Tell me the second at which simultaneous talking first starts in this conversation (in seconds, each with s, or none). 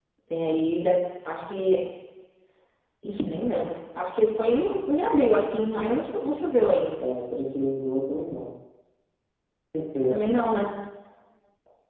none